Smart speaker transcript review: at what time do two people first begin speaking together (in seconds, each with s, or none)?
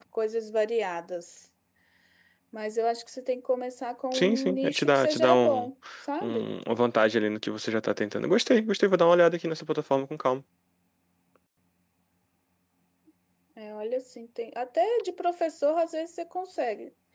4.1 s